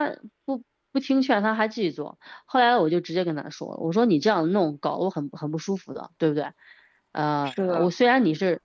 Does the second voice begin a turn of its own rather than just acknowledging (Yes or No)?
No